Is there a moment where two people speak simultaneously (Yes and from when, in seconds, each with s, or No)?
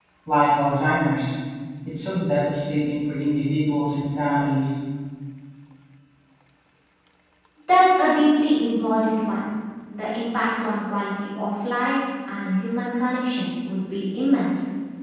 No